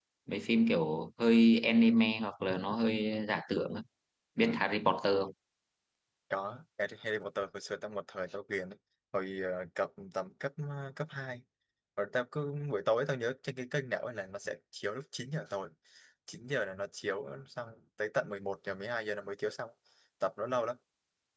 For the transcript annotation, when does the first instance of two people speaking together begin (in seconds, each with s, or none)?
none